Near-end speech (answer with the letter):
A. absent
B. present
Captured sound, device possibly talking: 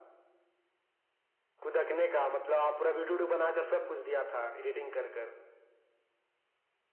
A